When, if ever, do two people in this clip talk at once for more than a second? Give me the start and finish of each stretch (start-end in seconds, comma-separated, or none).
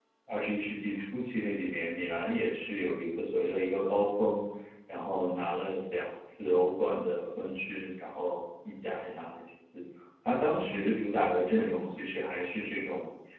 none